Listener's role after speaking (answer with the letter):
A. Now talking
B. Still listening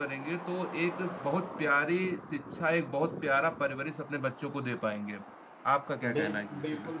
A